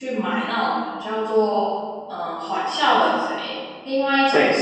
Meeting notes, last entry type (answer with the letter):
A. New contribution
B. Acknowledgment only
B